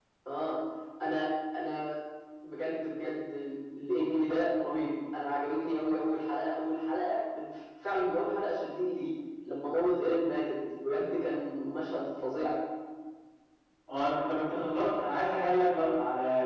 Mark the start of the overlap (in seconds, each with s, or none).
none